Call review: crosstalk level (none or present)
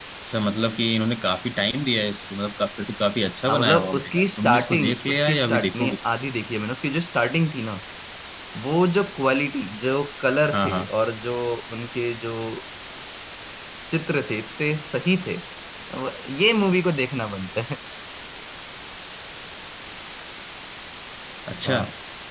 present